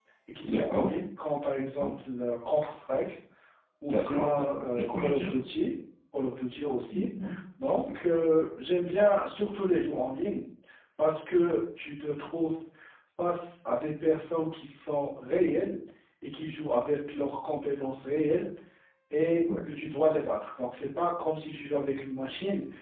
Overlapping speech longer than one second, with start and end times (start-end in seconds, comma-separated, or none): 3.9-5.3